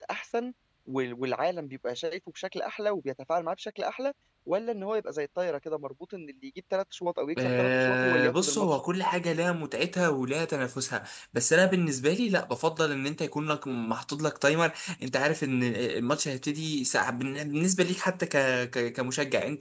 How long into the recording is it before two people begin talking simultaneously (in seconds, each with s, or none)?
7.4 s